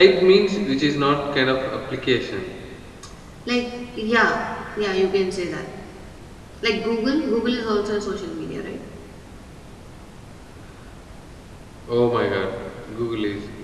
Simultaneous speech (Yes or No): No